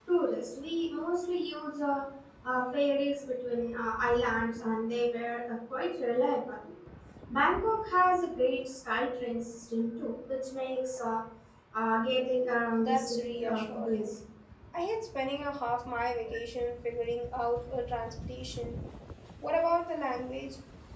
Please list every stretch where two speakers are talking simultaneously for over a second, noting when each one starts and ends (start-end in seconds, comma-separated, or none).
12.8-14.2